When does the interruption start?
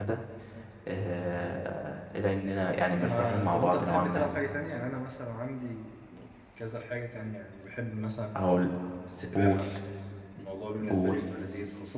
3.0 s

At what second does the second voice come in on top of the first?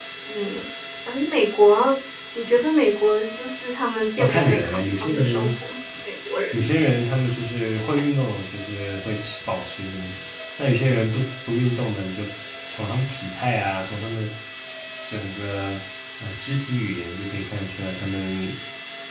4.2 s

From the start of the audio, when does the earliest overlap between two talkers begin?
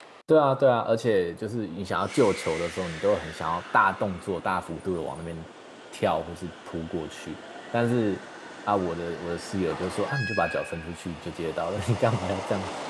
none

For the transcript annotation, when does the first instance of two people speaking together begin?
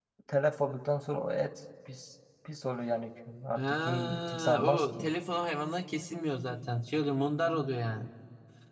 3.5 s

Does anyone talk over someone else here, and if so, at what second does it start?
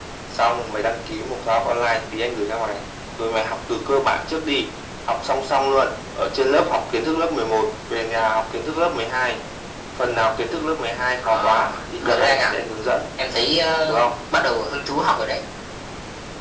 11.2 s

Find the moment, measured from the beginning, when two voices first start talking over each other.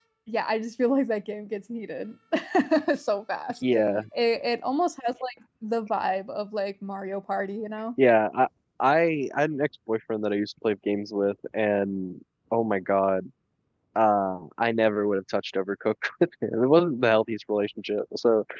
none

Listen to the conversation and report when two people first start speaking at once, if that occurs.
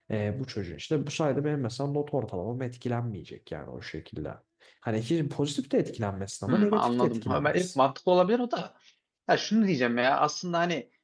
6.5 s

